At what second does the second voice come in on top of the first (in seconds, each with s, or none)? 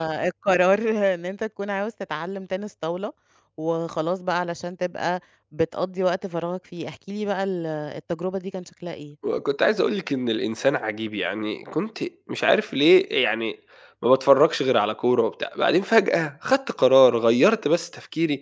none